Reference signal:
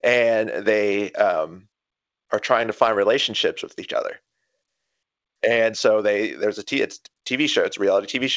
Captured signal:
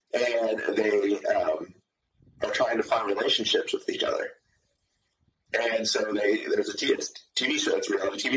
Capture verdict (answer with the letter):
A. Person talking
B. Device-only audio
B